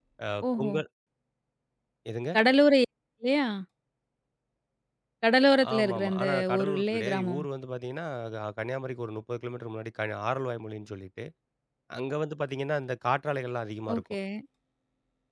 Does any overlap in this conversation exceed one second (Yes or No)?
Yes